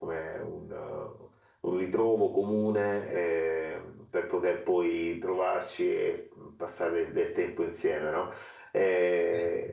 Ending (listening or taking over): listening